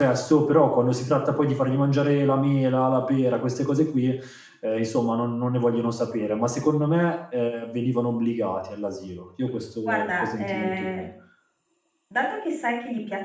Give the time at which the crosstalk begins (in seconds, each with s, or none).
9.8 s